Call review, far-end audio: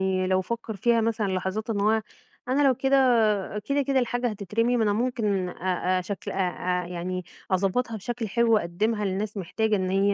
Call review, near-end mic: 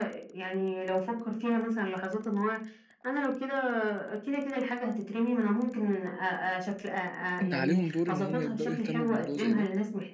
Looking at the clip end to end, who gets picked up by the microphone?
both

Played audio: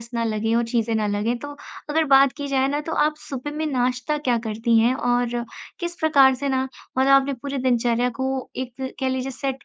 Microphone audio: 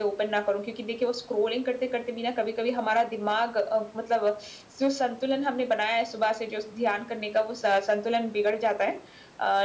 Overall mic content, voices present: user only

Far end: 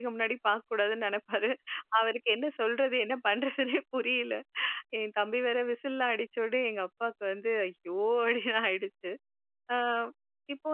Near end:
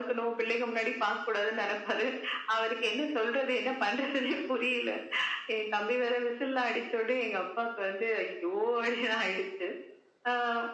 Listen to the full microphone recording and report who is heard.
echo only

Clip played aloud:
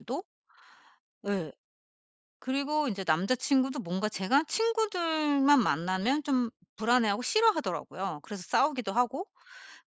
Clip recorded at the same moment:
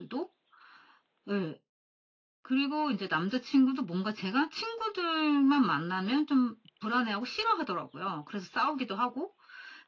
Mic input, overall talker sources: echo only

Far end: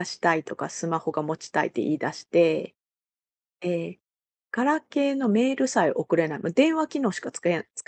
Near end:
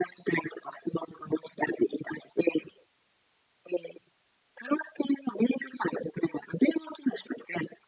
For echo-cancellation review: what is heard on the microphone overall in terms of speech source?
echo only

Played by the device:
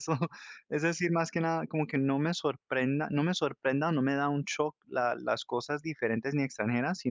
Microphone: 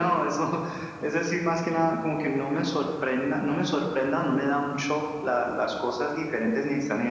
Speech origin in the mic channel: echo only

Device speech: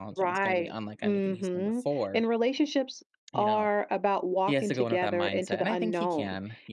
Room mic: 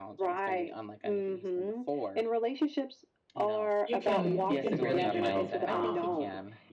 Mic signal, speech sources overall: both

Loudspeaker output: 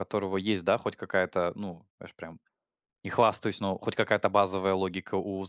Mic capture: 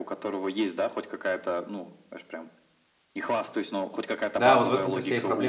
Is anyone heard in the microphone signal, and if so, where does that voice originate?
both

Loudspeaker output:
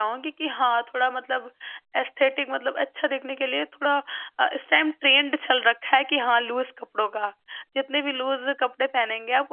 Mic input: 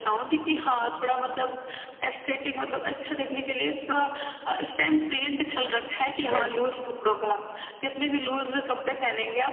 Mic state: both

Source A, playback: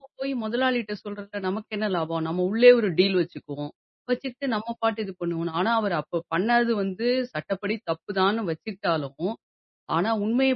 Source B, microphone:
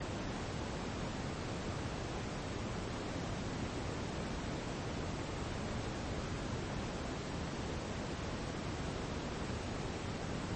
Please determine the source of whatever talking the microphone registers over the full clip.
neither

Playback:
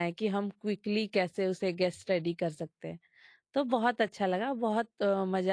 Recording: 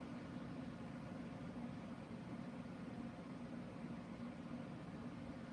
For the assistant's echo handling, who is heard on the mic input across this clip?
neither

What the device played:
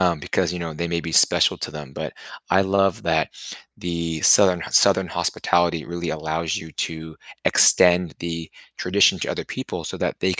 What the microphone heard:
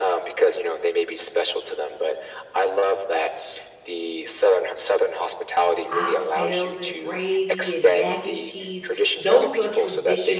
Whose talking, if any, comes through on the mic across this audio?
both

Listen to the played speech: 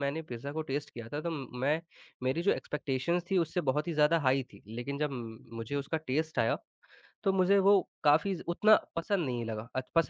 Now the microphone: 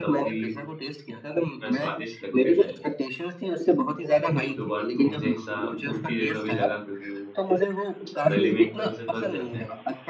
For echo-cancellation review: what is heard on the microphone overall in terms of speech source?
both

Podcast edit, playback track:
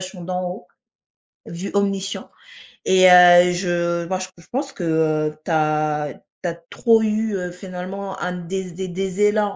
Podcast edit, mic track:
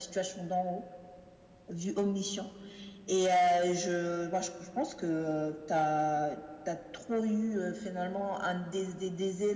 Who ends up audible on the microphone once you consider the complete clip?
echo only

